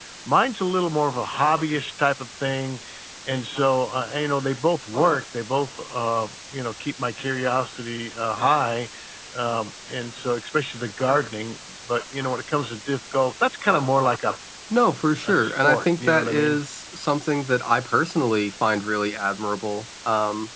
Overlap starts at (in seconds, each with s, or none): 15.2 s